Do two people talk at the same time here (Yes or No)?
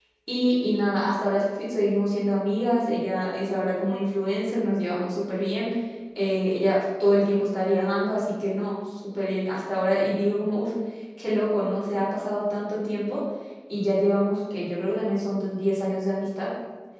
No